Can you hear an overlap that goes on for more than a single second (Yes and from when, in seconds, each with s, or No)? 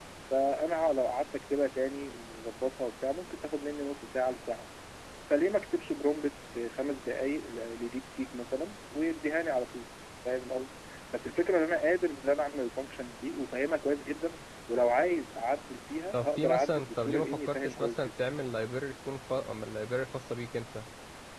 Yes, from 16.1 s